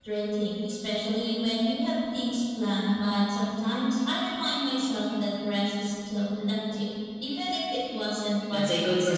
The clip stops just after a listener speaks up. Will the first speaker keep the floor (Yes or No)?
No